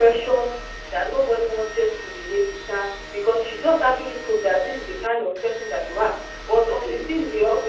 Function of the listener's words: listening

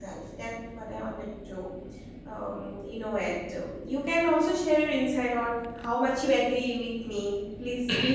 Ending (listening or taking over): taking over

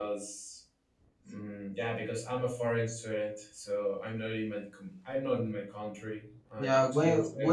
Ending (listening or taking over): taking over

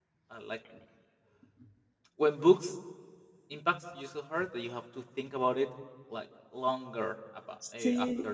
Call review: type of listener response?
listening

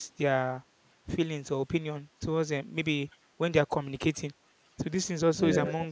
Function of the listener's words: listening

